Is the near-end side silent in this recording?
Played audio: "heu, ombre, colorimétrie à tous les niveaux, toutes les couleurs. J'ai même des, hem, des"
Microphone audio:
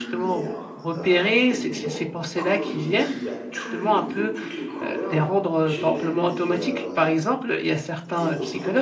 No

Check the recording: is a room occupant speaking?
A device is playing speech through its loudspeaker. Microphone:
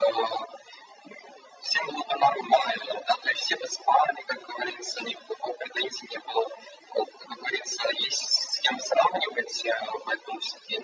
No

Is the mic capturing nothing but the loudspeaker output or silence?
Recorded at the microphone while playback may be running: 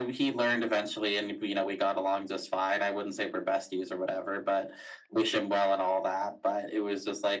Yes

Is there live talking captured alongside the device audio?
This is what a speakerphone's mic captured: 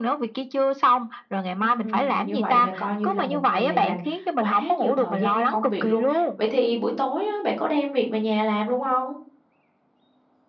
Yes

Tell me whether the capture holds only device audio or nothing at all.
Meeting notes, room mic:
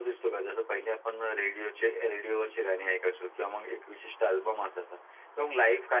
Yes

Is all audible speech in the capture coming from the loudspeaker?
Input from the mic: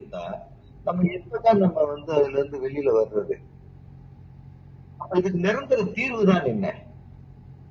Yes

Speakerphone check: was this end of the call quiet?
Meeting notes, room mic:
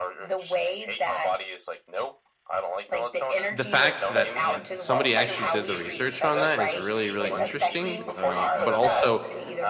No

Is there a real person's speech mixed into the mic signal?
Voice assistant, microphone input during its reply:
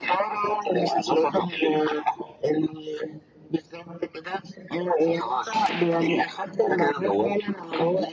No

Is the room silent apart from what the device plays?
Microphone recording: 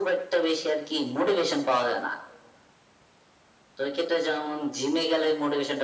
Yes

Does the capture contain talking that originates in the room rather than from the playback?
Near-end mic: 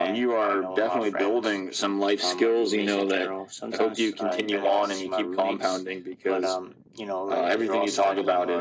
Yes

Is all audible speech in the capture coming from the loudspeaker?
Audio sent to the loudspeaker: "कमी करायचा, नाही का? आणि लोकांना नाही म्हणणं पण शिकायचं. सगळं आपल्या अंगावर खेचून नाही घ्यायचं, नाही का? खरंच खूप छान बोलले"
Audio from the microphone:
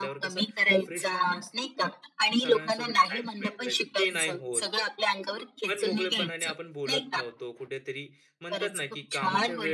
No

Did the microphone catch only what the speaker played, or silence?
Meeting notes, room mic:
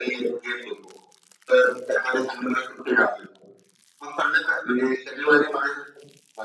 Yes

